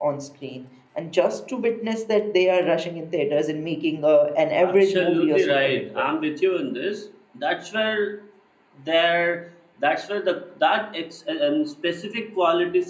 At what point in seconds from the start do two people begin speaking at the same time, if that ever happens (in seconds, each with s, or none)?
4.6 s